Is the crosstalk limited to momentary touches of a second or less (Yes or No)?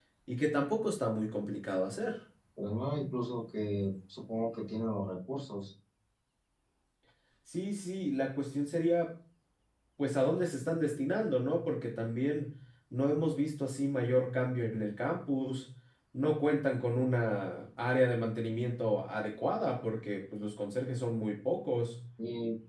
Yes